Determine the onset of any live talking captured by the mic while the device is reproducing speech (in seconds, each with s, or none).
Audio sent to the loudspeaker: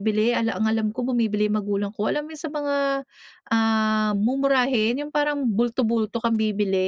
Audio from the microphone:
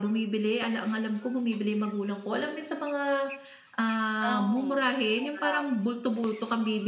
4.2 s